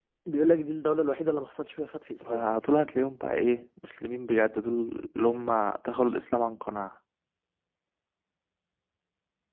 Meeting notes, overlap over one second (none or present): none